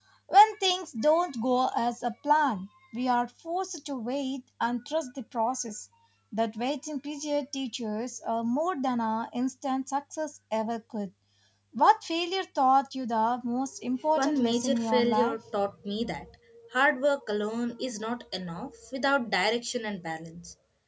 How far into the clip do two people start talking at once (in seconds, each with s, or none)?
14.0 s